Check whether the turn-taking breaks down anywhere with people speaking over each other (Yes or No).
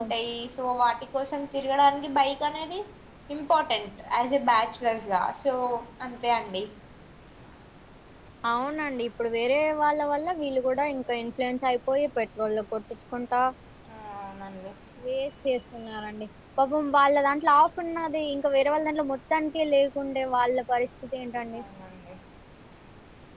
No